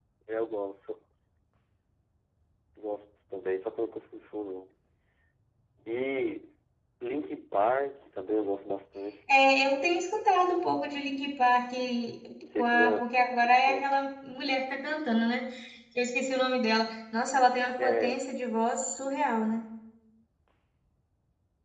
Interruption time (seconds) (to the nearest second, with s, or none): 13 s